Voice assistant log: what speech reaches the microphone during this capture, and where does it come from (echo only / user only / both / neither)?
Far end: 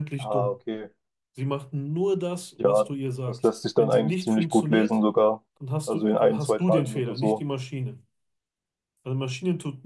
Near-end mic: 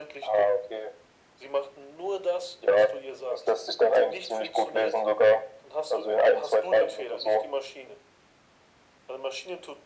echo only